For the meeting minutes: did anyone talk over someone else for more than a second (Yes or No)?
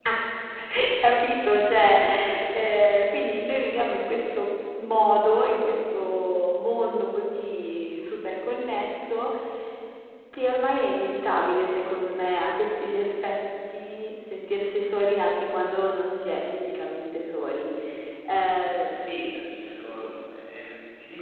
No